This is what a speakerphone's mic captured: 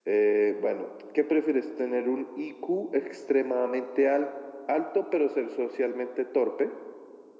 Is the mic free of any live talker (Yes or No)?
Yes